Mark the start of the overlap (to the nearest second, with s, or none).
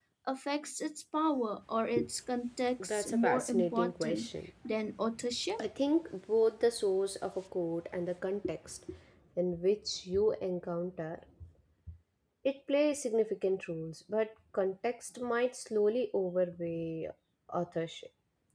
3 s